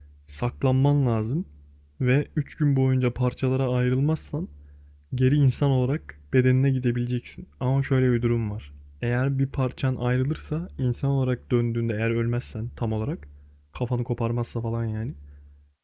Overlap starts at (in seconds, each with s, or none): none